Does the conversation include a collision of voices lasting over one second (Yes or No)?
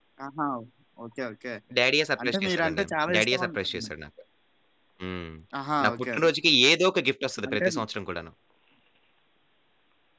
Yes